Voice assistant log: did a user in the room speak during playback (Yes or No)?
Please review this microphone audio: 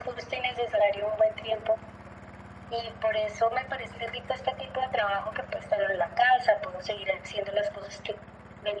No